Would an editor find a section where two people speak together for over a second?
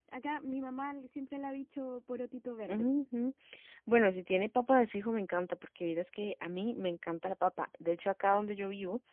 No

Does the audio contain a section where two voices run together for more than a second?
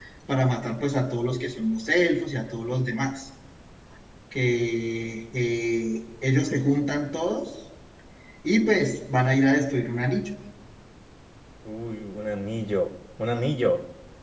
No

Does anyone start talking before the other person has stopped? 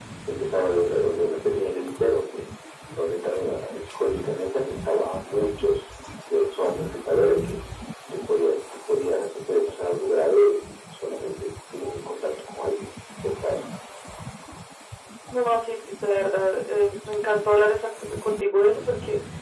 No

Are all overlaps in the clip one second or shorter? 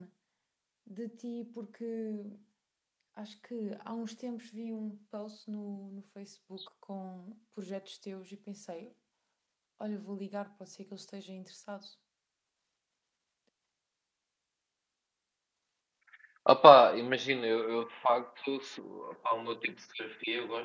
Yes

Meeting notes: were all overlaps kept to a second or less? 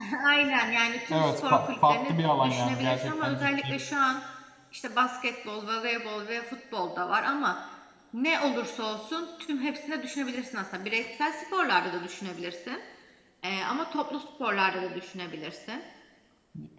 No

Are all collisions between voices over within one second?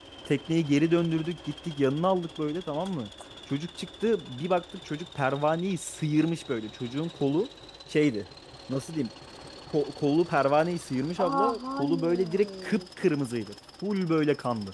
No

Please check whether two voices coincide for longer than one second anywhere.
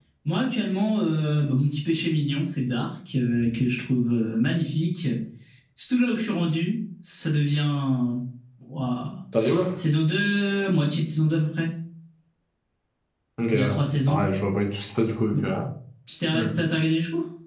No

